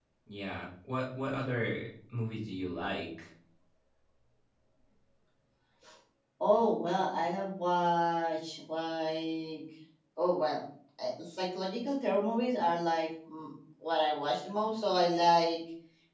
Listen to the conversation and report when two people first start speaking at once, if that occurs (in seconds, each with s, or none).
none